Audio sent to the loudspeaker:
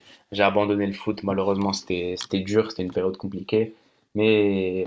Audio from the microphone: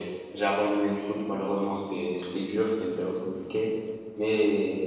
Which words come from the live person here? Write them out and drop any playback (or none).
none